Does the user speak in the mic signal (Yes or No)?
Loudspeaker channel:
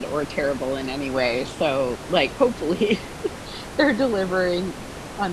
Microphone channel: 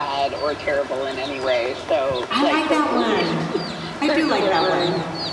Yes